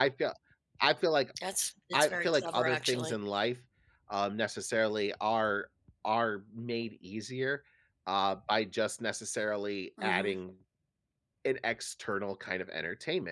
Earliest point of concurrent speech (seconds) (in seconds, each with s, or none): 1.9 s